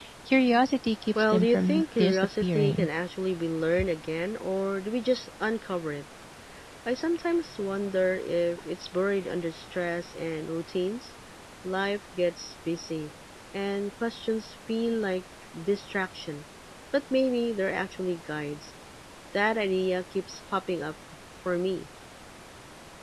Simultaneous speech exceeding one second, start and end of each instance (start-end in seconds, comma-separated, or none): 1.2-2.9